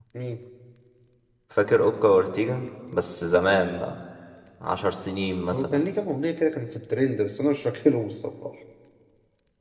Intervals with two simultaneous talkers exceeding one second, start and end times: none

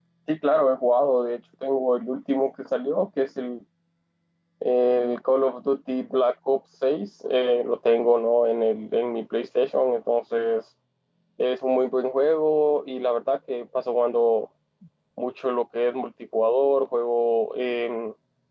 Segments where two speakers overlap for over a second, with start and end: none

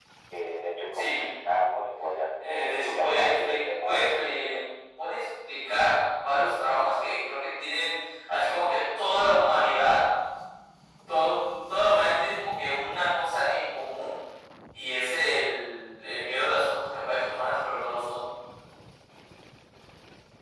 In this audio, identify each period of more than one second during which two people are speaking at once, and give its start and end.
2.4-4.6

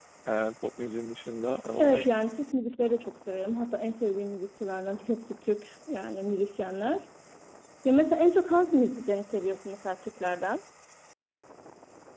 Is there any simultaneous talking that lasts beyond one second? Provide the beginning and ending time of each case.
none

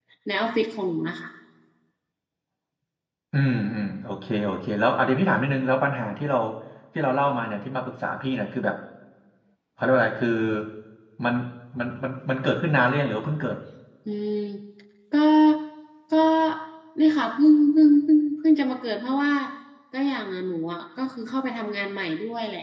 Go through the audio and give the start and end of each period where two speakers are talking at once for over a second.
none

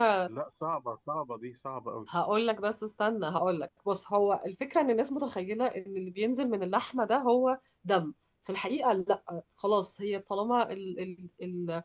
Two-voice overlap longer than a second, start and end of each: none

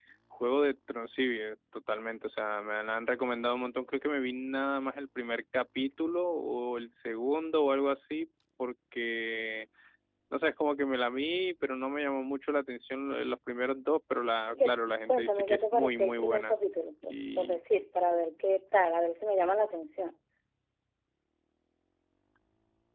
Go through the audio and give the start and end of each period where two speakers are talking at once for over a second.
14.5-16.6

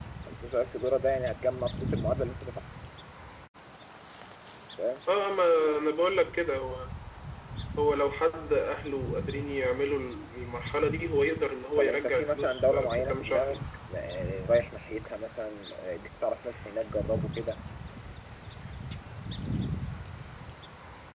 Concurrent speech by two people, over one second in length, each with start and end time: 11.8-13.6

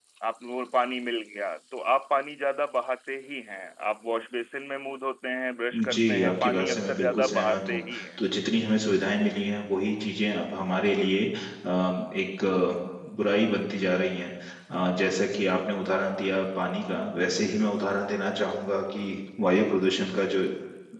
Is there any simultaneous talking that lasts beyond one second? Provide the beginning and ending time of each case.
5.9-8.2

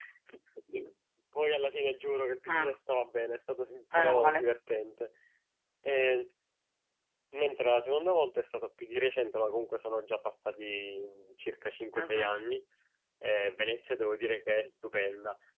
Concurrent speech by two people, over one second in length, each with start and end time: none

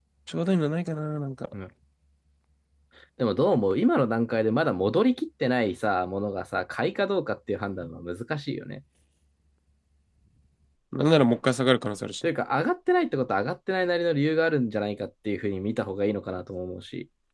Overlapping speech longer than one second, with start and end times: none

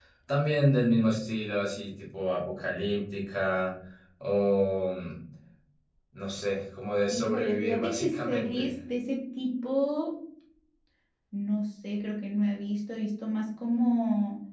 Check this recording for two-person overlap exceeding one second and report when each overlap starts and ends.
7.1-8.7

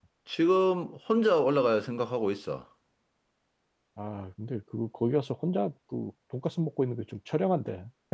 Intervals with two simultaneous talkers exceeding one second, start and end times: none

